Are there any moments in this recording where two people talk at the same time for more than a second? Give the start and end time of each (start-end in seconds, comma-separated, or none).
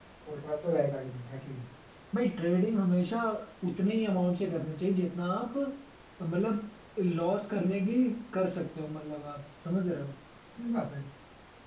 none